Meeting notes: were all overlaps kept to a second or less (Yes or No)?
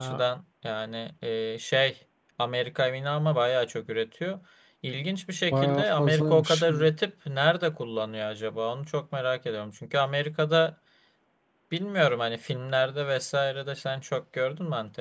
No